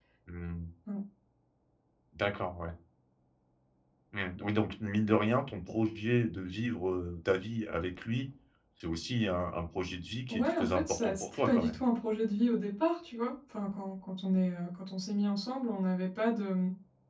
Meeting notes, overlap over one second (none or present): present